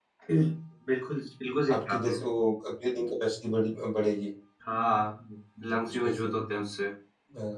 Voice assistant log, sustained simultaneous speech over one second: none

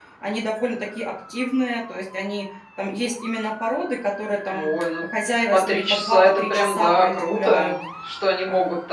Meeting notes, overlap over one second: present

